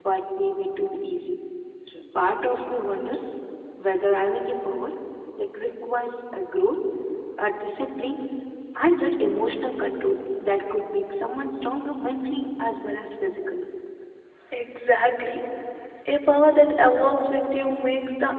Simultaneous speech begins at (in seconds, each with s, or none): none